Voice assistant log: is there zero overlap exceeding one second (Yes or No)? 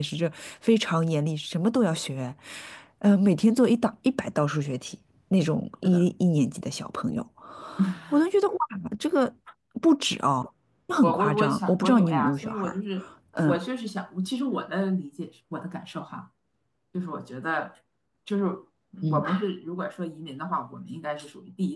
No